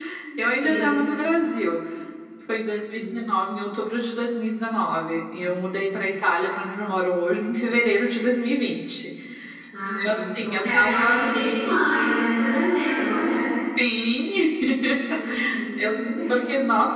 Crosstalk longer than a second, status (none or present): present